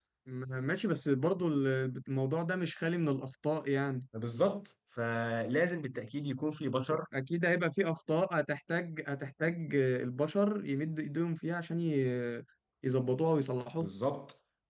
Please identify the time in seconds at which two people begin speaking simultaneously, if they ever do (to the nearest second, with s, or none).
none